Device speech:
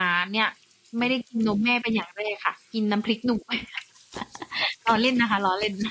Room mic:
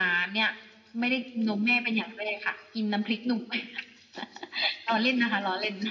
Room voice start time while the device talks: none

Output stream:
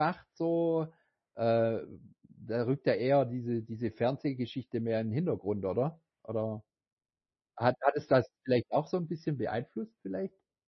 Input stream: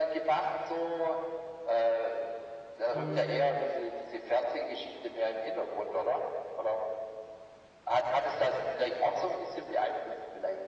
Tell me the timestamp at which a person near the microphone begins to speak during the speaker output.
2.9 s

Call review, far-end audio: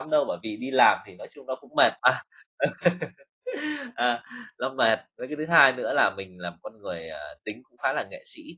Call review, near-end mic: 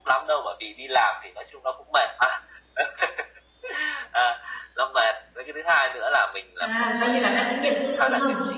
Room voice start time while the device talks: 6.6 s

